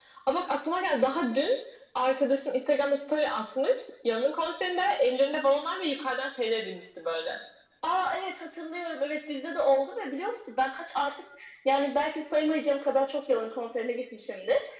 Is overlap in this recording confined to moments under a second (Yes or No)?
Yes